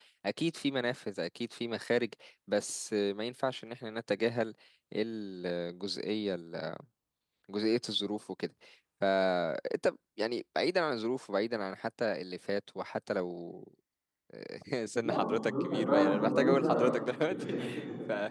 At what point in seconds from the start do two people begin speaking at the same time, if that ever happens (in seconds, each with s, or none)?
14.9 s